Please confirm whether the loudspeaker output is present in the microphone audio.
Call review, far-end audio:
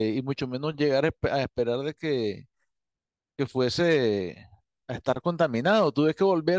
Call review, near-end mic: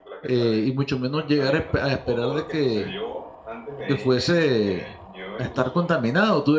Yes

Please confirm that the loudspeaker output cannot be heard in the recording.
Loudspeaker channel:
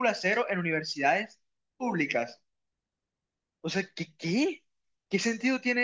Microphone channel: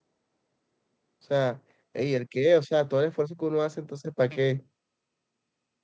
Yes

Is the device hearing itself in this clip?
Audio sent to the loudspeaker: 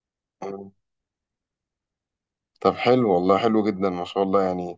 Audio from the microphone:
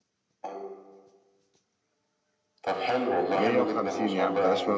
Yes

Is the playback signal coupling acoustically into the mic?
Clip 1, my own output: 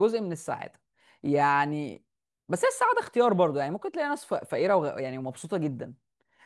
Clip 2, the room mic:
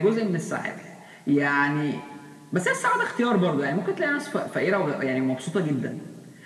Yes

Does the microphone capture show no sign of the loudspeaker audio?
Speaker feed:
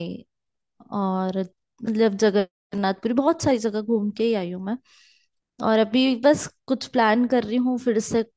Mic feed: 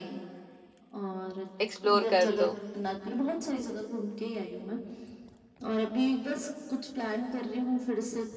No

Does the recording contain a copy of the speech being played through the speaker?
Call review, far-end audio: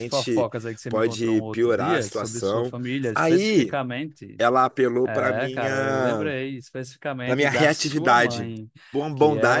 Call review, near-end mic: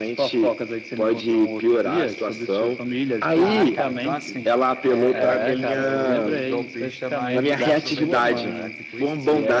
Yes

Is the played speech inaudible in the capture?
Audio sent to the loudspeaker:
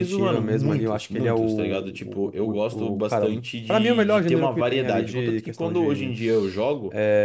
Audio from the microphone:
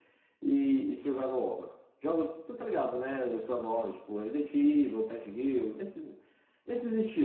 Yes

